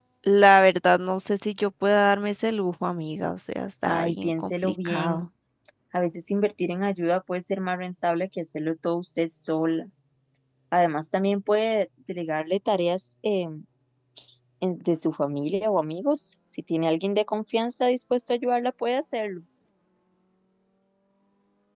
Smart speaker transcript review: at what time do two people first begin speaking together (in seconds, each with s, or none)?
3.9 s